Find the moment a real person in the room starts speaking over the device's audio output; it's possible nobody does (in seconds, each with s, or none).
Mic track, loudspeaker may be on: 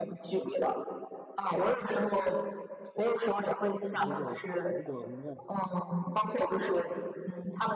3.9 s